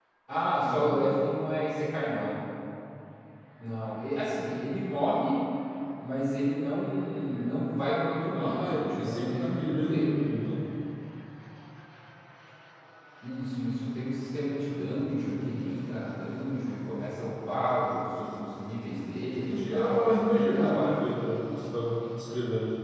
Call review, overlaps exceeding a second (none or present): present